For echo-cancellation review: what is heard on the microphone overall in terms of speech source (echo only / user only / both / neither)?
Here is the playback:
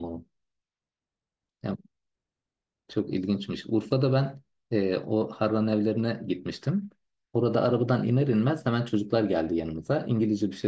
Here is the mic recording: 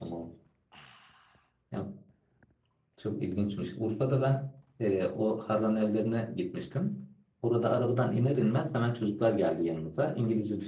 echo only